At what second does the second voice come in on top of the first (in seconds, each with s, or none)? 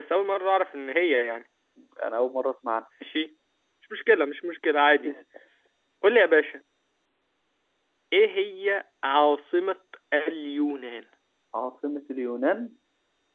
none